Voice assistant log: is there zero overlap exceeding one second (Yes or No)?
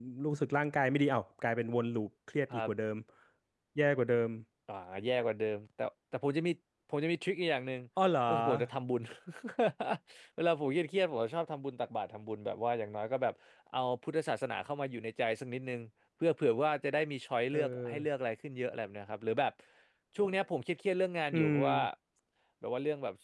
Yes